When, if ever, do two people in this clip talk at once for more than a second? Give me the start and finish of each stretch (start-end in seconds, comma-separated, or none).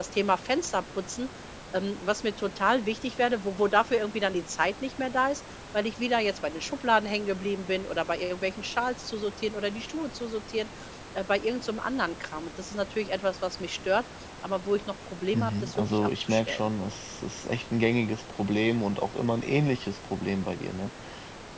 15.3-16.7